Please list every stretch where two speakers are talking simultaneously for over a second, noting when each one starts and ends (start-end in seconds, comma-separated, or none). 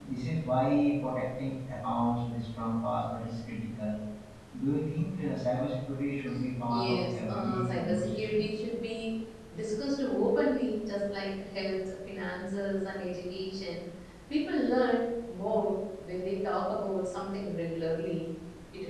6.7-8.4